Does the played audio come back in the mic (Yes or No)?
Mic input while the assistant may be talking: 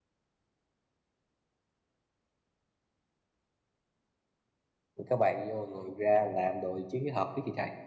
No